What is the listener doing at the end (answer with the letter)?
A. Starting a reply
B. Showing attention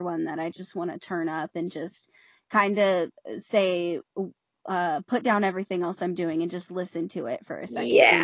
A